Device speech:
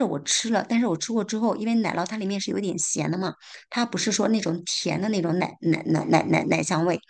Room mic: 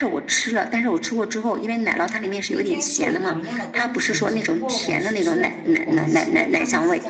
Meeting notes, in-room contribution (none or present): present